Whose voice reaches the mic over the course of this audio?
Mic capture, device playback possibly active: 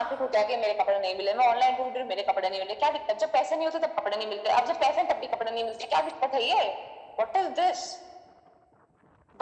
echo only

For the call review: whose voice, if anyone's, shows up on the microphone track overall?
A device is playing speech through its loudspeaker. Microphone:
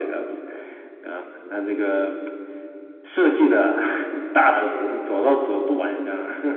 echo only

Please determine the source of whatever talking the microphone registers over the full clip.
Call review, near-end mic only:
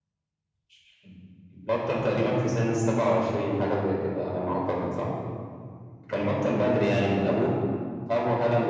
echo only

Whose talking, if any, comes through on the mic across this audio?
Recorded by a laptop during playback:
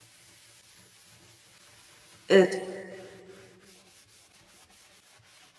user only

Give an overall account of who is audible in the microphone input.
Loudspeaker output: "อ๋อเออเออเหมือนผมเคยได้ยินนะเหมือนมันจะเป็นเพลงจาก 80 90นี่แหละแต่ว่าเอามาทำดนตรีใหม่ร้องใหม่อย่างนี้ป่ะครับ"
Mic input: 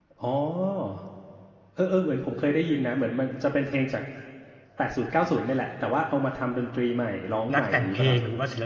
both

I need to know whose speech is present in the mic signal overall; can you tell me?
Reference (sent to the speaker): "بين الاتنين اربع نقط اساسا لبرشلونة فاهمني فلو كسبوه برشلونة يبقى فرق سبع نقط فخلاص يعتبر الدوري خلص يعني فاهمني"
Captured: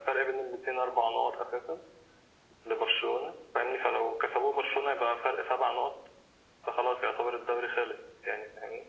echo only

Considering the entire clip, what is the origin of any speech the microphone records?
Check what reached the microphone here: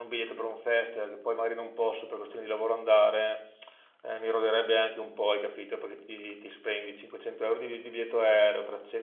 user only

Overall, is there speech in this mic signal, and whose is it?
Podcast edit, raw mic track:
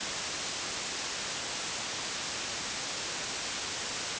neither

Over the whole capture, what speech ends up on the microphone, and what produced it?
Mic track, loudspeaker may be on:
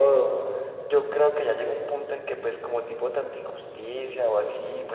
echo only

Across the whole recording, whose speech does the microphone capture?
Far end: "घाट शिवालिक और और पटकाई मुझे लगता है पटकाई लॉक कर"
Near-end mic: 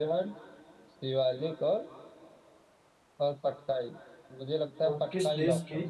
both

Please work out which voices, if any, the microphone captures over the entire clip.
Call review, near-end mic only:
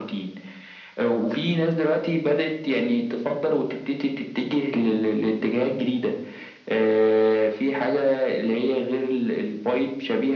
echo only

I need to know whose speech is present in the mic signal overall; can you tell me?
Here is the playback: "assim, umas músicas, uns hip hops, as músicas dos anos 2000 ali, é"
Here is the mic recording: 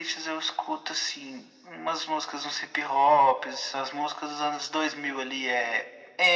echo only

